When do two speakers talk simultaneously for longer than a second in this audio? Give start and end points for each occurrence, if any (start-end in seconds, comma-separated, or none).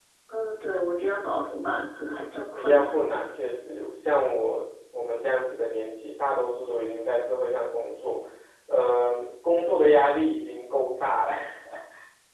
none